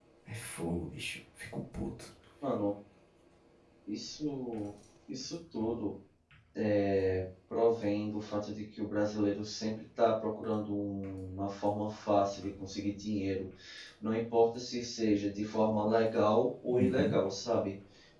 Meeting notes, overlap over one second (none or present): none